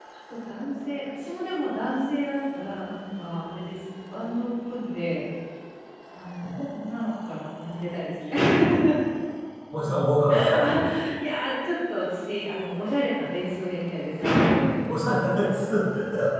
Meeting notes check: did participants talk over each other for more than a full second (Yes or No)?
No